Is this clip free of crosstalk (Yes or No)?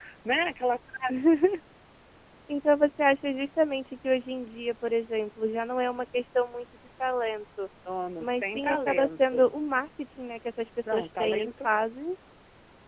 No